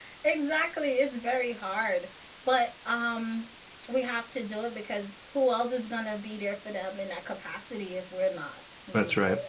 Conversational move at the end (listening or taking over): taking over